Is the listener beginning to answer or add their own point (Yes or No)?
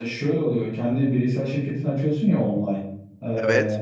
No